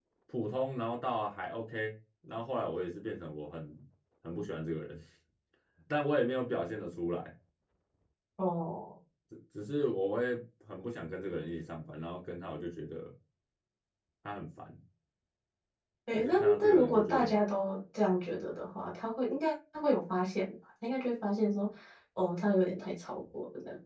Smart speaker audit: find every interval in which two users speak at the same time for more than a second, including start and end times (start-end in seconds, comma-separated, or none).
16.1-17.4